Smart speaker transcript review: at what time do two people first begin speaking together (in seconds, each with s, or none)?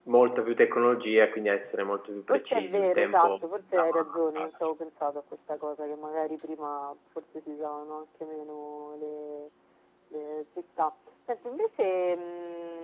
2.3 s